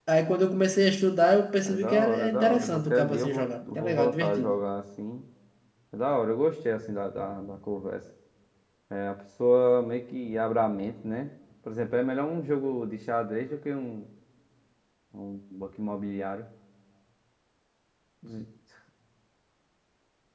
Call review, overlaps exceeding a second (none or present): present